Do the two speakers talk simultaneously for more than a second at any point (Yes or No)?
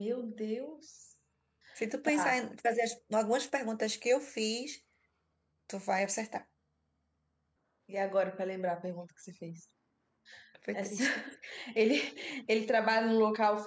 No